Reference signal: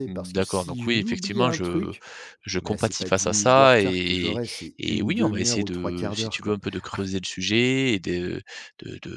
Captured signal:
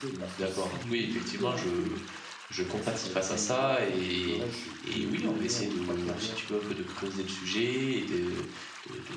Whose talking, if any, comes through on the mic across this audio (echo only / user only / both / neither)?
echo only